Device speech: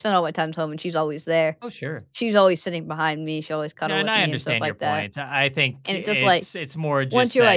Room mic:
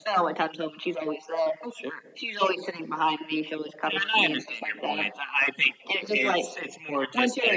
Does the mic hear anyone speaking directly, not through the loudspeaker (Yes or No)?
No